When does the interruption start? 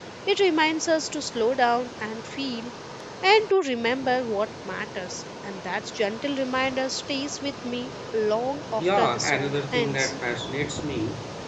8.8 s

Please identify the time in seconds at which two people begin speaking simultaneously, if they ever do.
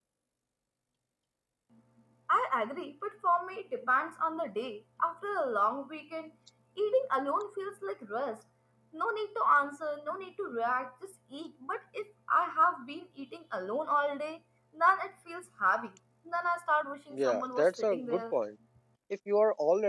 17.1 s

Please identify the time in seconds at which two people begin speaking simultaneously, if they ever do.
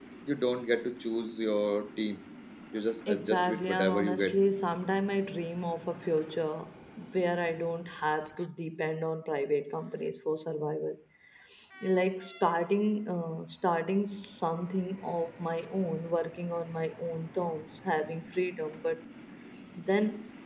3.1 s

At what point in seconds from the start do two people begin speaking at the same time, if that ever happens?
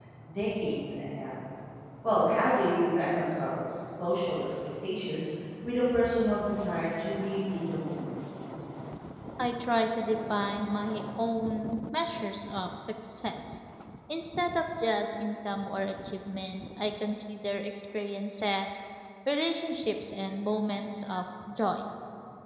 none

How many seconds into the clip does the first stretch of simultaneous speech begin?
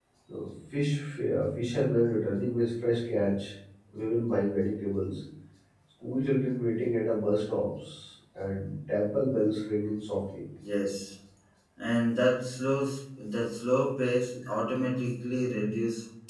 none

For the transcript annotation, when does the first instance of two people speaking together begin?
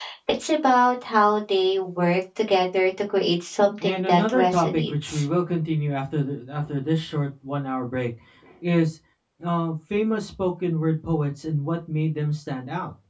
3.8 s

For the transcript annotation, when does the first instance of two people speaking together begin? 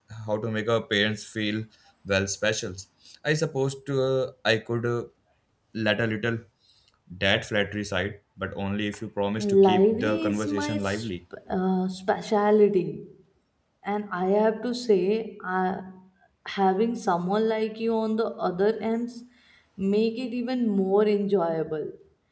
9.4 s

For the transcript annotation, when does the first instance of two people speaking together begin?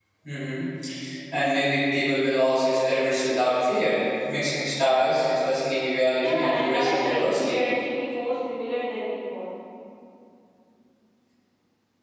6.2 s

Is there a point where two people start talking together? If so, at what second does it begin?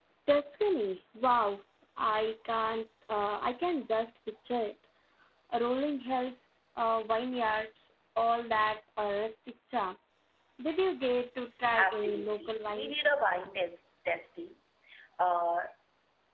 11.8 s

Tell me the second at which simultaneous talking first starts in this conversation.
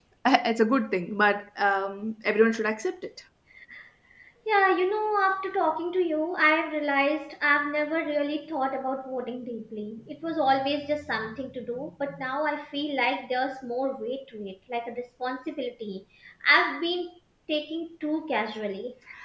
none

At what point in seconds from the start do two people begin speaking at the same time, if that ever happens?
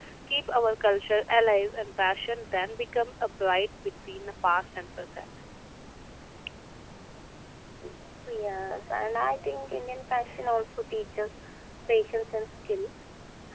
none

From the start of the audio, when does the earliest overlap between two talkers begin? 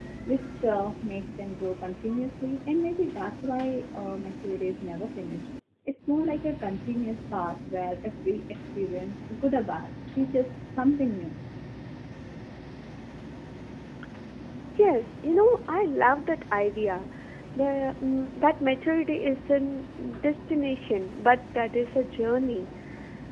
none

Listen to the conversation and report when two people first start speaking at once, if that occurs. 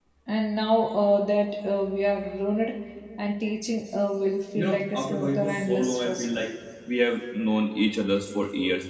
4.6 s

